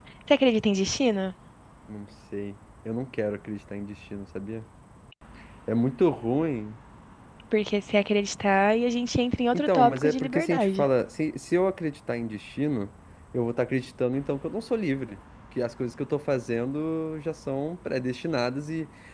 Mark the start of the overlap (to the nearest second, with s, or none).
10 s